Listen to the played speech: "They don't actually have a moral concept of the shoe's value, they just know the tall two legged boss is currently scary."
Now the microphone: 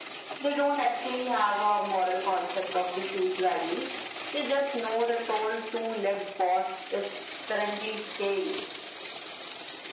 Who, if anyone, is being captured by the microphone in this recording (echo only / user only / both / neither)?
echo only